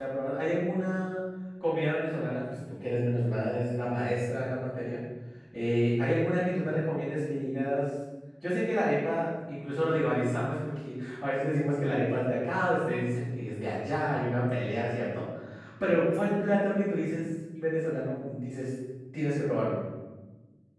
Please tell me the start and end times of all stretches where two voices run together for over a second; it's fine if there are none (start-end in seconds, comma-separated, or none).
none